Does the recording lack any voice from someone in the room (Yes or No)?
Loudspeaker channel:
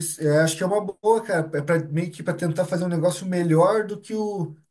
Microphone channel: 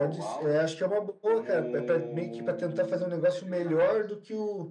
No